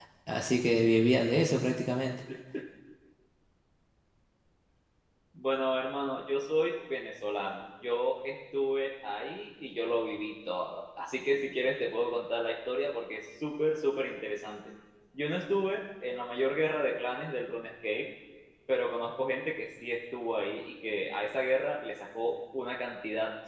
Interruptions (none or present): none